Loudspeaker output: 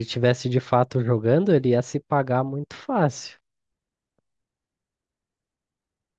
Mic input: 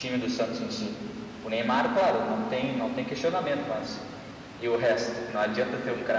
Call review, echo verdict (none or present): none